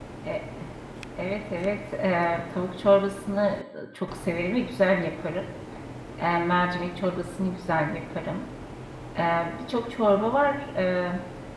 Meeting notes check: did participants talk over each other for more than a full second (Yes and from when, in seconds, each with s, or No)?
No